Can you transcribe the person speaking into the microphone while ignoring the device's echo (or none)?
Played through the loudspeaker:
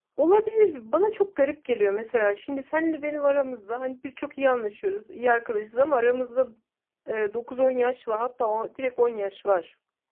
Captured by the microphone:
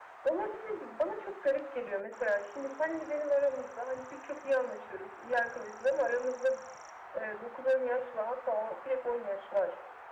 none